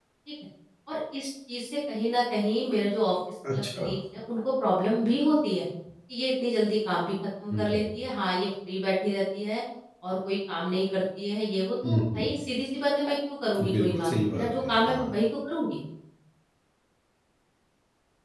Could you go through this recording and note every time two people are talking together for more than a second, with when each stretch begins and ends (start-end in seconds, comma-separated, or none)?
13.7-15.1